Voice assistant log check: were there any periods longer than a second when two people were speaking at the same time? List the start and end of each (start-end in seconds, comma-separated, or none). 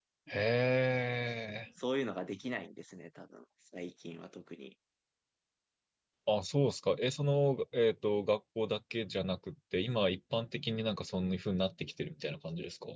none